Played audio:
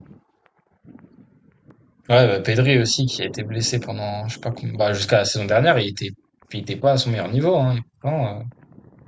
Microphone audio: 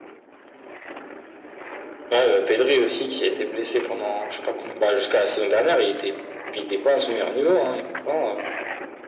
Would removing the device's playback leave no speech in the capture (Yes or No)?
Yes